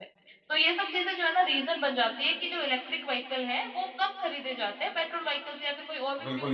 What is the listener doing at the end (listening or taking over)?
taking over